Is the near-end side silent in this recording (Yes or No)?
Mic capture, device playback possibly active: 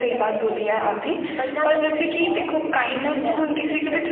Yes